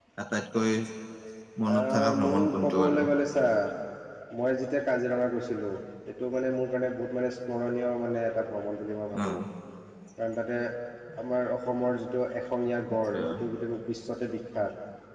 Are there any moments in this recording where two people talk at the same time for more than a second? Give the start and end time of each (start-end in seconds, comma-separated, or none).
1.7-3.0